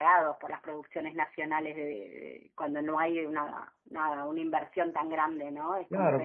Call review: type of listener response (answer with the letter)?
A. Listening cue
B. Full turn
B